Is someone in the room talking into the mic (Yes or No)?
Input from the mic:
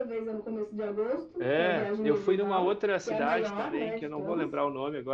Yes